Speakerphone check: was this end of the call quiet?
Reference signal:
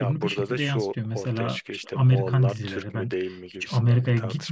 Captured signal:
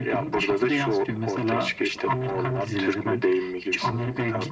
Yes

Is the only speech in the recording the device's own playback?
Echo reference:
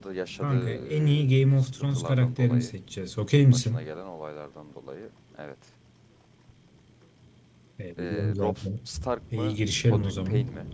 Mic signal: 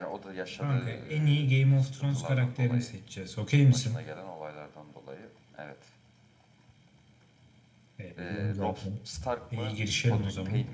Yes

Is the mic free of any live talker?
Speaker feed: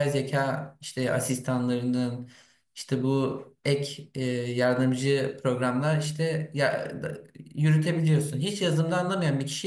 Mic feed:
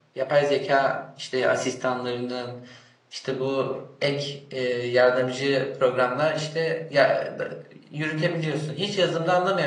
Yes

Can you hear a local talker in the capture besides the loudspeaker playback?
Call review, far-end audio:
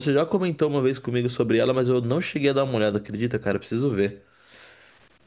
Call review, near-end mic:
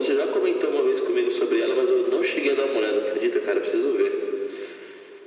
No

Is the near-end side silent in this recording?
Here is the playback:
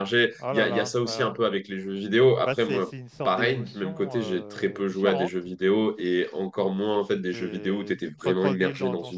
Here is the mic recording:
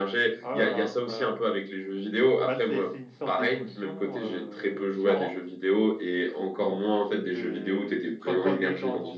Yes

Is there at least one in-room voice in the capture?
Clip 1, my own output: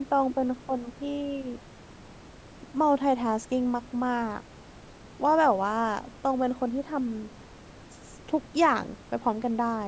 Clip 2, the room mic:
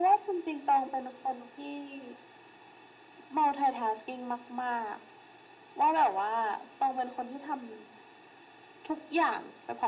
No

